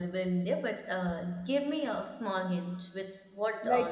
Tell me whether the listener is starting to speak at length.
Yes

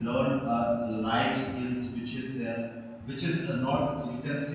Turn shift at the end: No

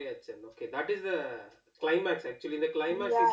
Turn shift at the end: Yes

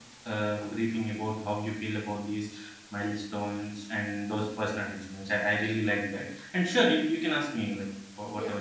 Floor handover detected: Yes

